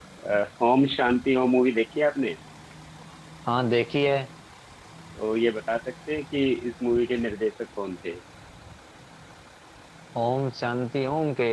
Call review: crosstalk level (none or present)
none